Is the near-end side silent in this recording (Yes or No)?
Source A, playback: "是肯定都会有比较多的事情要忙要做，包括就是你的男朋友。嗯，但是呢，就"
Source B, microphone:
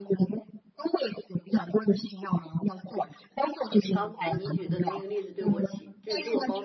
No